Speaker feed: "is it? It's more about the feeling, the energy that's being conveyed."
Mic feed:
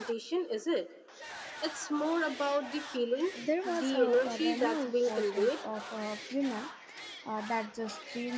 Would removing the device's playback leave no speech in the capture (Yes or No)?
No